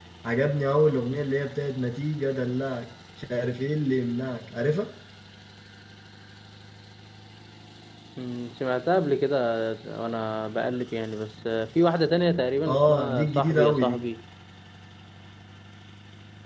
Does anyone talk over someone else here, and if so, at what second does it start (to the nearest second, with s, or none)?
13 s